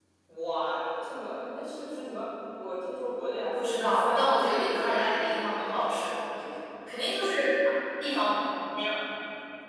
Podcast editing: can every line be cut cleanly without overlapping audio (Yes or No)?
No